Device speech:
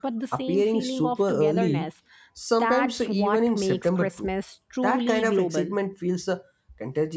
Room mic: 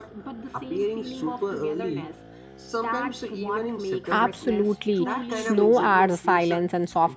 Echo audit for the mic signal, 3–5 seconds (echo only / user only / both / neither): both